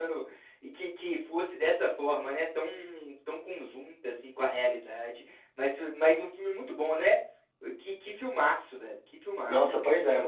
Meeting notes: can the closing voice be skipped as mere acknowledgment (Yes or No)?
No